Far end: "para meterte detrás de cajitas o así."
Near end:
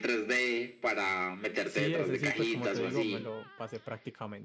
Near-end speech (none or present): present